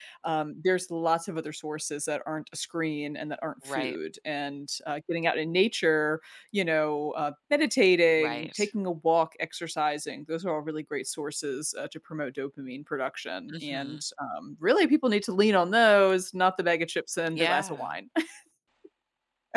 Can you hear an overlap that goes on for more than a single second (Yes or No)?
No